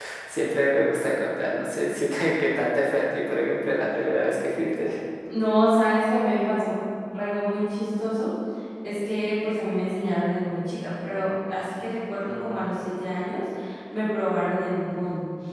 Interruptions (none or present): none